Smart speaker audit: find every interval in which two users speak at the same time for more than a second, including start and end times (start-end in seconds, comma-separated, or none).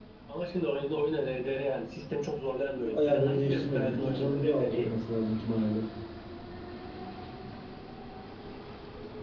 2.9-4.9